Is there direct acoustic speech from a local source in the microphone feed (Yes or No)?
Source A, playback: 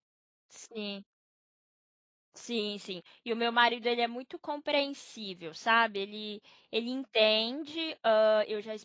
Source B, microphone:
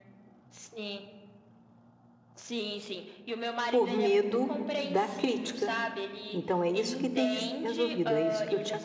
Yes